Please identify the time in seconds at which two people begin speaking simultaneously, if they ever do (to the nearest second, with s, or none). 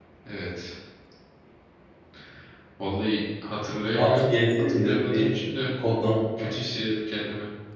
4 s